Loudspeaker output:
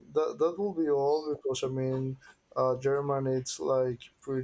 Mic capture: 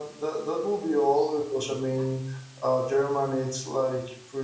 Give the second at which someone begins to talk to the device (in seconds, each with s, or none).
none